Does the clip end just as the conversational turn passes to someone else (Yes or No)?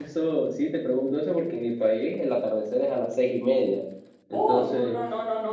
Yes